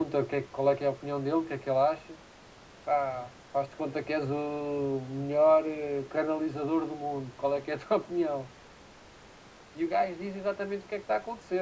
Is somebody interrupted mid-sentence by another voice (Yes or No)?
No